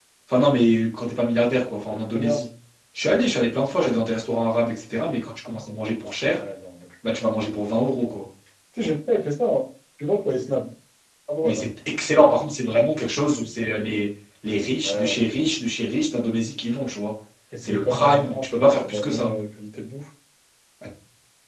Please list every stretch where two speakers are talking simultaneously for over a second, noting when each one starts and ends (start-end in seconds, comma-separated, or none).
17.6-19.4